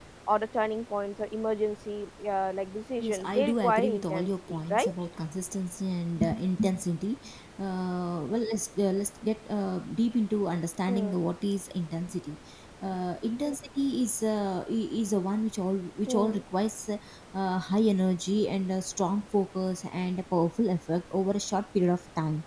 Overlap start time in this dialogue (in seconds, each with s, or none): 3.0 s